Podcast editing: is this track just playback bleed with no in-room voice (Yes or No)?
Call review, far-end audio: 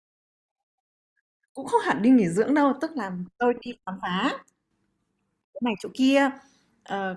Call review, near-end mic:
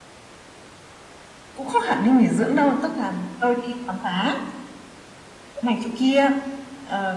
Yes